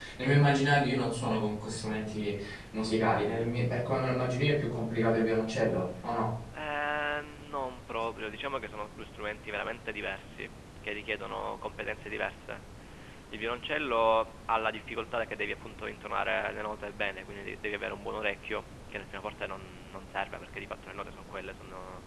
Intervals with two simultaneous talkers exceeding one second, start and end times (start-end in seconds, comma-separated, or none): none